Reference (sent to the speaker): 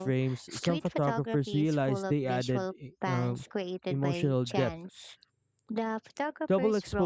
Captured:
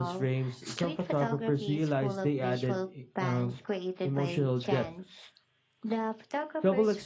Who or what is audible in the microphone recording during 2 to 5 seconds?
echo only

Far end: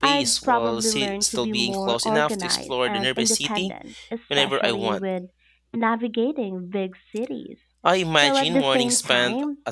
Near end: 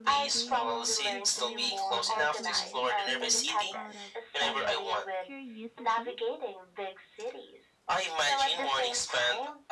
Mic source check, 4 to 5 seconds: both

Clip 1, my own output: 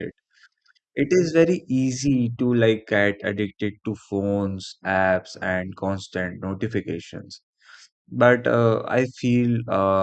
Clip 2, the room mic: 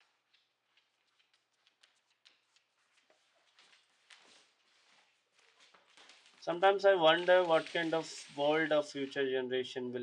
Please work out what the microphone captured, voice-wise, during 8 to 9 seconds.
user only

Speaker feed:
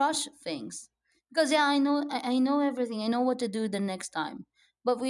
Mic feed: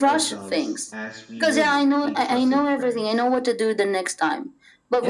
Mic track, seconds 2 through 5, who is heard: both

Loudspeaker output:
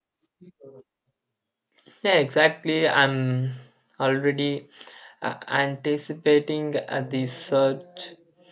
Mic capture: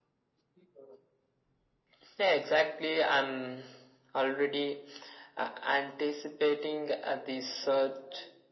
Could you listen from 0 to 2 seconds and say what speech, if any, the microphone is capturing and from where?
neither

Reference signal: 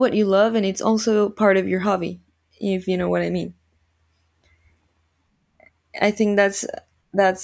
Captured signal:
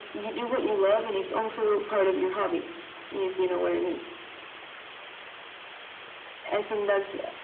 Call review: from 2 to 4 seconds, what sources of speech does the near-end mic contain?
echo only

